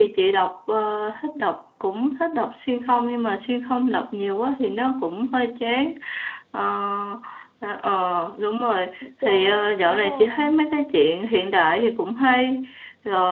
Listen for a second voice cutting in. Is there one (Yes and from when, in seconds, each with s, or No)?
Yes, from 9.0 s